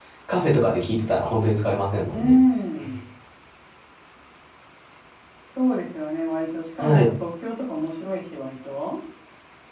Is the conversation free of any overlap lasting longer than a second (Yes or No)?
Yes